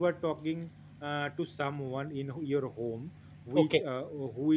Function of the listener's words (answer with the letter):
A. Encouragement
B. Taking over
A